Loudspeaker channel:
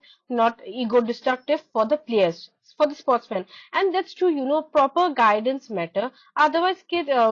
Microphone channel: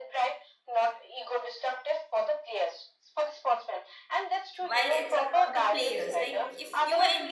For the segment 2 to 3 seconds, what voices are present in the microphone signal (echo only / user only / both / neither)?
echo only